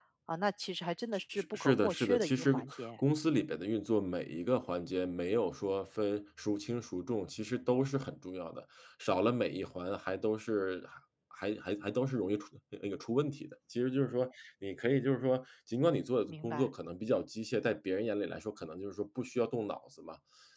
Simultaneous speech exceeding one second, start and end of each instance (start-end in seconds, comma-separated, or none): 1.4-2.9